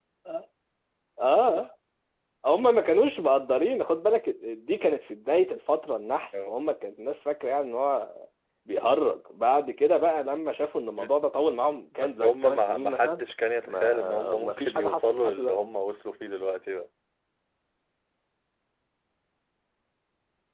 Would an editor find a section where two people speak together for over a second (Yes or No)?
Yes